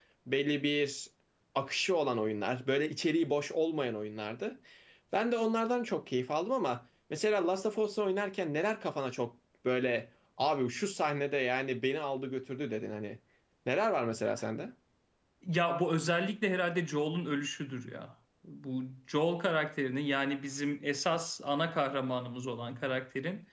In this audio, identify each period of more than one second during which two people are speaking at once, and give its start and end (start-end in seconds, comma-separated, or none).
none